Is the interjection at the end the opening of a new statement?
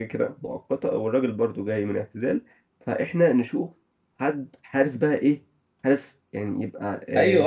Yes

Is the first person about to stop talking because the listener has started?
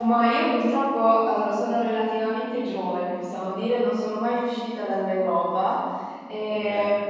No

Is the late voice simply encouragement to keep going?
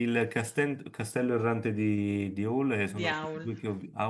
Yes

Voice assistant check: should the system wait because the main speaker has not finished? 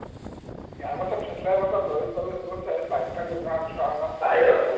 No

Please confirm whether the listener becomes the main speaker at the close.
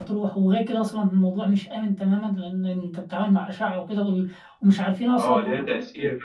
Yes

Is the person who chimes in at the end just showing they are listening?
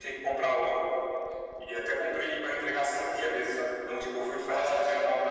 Yes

